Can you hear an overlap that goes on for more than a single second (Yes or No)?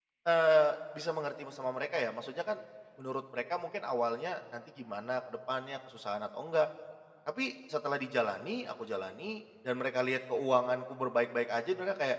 No